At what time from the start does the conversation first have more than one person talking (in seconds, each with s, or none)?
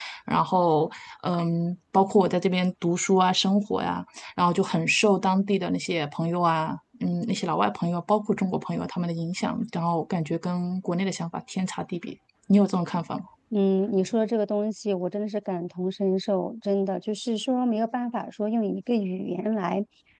none